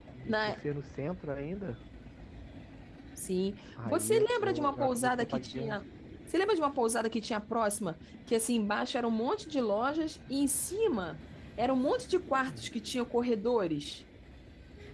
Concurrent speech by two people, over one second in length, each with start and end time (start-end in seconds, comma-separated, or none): 3.9-5.8